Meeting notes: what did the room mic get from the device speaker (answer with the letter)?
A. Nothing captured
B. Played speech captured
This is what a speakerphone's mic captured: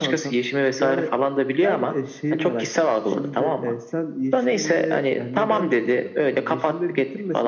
B